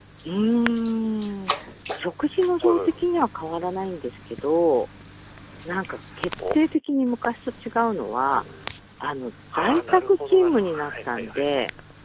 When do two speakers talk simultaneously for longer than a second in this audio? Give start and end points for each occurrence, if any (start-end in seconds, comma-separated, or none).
9.5-11.5